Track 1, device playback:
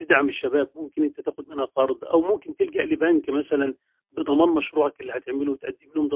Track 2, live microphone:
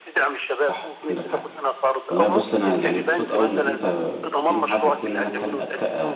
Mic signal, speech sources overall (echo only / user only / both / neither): both